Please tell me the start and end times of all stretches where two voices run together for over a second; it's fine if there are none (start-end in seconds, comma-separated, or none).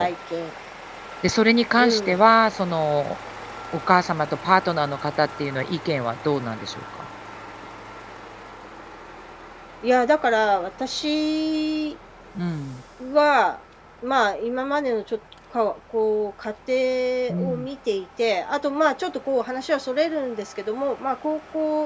none